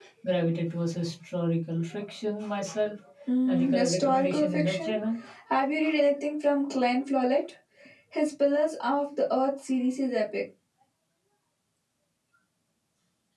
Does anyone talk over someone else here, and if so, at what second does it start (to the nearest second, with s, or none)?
3 s